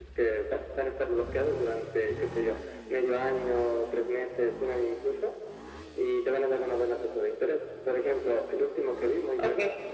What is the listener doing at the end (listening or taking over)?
listening